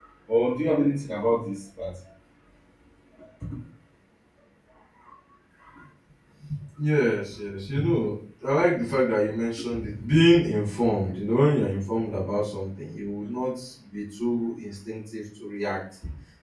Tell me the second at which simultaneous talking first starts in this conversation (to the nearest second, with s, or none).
none